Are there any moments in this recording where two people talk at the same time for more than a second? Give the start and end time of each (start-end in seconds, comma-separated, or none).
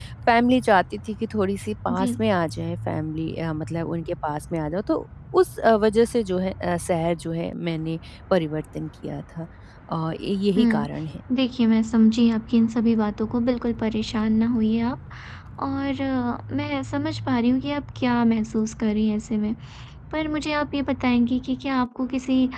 none